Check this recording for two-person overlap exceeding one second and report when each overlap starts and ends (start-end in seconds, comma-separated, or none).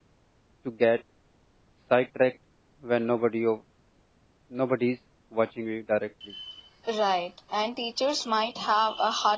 none